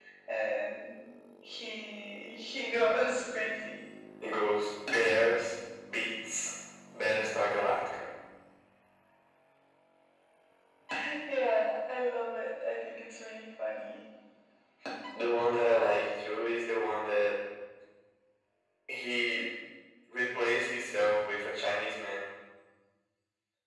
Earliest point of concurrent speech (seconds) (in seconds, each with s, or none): none